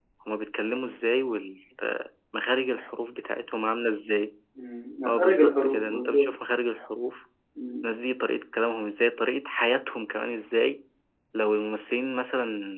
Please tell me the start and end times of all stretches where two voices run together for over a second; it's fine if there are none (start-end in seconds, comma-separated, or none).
5.0-6.3